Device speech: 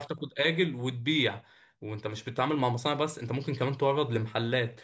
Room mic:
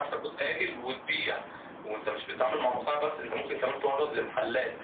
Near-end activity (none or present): none